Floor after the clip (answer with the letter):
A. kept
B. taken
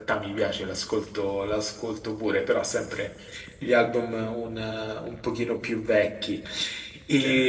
A